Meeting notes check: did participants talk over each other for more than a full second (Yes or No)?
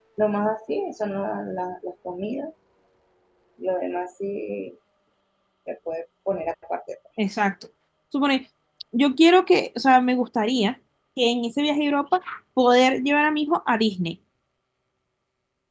No